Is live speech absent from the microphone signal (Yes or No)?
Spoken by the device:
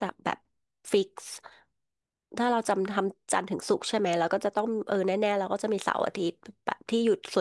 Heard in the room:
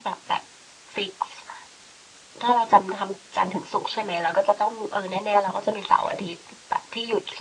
Yes